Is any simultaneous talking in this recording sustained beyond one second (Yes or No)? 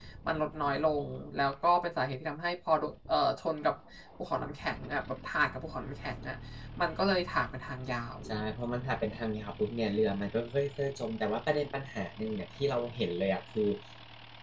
No